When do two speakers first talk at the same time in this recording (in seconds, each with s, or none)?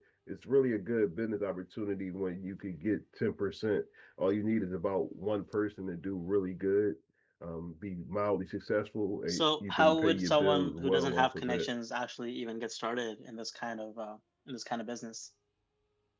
9.3 s